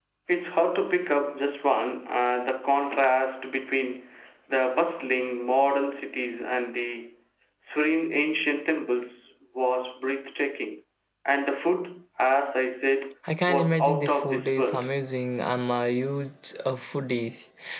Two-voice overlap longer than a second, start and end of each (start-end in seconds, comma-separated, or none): 13.5-14.8